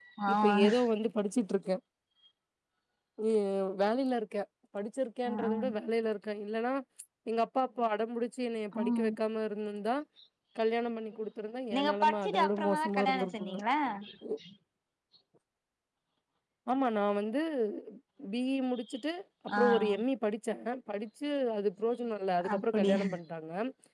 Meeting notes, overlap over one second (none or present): present